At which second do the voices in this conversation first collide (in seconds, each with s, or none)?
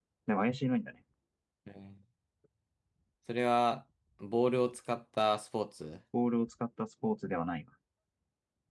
none